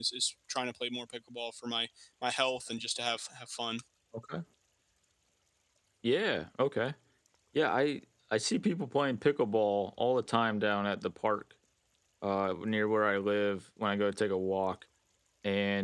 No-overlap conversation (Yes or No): Yes